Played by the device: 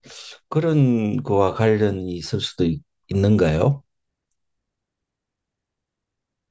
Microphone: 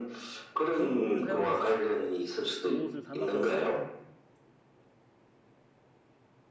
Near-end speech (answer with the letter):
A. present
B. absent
A